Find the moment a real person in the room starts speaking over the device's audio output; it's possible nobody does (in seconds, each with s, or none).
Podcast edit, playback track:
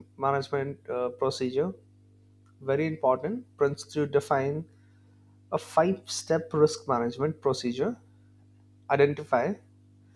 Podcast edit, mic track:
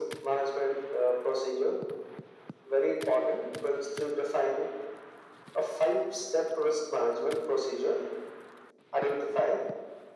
none